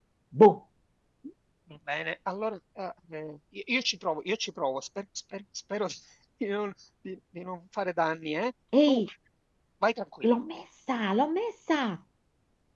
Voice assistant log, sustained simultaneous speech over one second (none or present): none